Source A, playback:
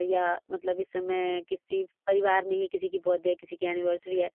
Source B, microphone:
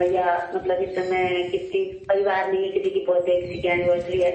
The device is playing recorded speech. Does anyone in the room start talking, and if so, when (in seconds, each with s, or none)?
none